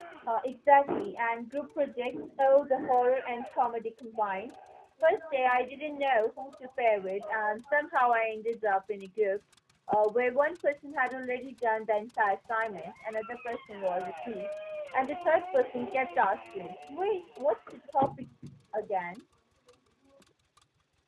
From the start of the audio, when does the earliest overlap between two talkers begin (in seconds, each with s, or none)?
none